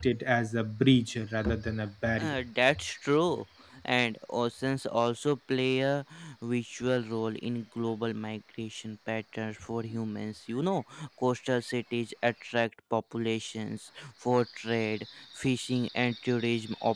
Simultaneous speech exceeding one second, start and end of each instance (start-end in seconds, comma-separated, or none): none